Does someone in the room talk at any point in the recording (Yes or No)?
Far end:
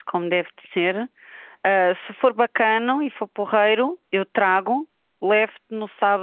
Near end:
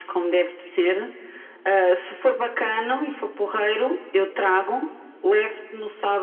No